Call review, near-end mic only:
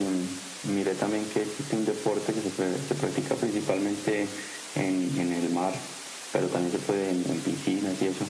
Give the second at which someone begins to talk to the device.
none

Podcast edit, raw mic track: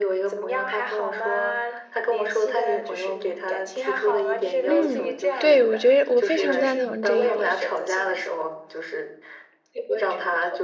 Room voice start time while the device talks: 5 s

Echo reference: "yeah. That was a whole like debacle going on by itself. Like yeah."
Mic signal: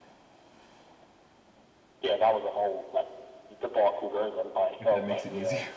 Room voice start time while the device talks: 5 s

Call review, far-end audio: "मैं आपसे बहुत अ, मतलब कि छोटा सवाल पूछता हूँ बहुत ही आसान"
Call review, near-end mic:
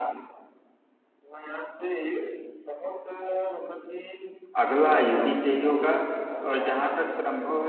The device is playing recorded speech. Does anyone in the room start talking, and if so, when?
5 s

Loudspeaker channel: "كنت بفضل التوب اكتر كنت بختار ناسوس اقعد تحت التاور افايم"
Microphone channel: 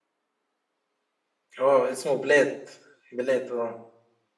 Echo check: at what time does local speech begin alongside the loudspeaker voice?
2 s

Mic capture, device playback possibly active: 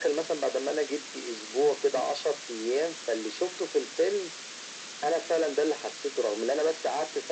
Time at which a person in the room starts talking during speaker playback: none

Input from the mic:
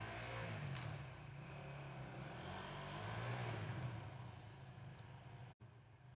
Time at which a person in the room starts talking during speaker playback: none

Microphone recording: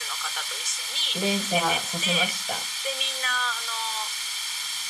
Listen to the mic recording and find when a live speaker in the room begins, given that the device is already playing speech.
1 s

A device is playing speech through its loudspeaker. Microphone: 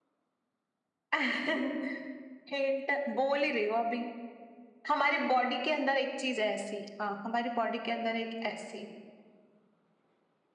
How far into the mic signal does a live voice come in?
none

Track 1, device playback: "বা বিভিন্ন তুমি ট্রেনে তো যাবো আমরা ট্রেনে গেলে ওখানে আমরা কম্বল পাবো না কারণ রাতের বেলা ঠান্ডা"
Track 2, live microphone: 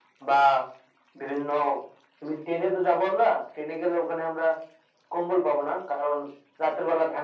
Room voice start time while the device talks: none

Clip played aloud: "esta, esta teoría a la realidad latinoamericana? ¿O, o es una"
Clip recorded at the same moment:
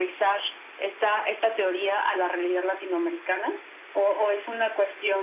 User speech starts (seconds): none

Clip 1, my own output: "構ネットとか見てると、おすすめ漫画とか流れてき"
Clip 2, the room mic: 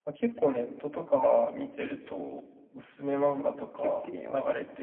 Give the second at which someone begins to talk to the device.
4 s

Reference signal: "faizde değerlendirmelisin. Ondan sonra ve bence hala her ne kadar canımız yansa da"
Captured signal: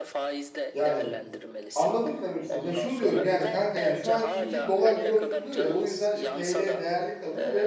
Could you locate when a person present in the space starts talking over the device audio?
1 s

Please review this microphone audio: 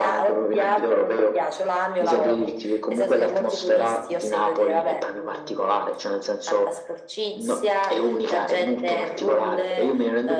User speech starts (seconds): none

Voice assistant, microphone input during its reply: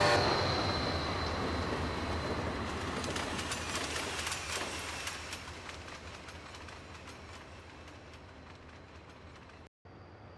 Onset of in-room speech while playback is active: none

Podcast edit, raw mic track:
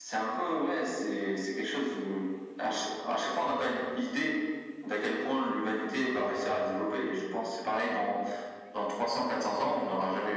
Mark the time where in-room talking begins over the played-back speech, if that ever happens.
none

